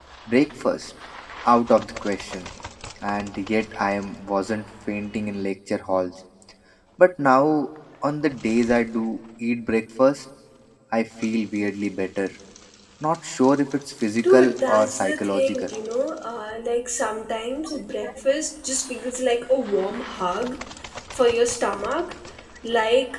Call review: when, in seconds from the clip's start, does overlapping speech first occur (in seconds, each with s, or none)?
14.2 s